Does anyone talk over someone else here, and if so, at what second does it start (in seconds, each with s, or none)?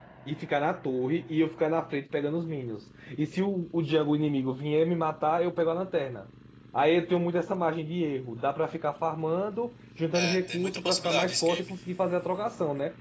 10.1 s